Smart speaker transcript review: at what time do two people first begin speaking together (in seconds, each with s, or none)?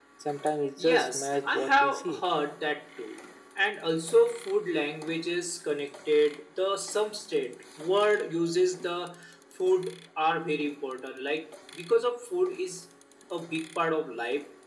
0.8 s